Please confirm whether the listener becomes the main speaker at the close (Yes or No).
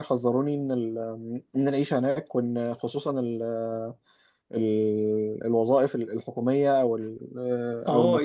Yes